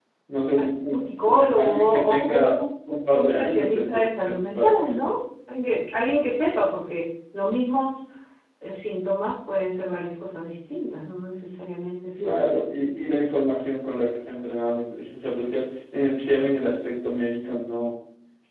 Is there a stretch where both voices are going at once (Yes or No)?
Yes